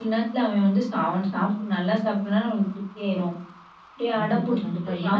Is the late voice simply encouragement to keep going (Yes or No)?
No